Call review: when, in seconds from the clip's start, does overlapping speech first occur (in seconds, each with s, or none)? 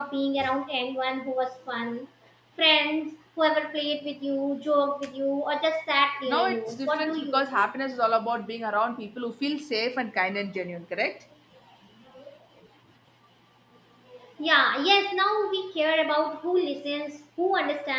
6.3 s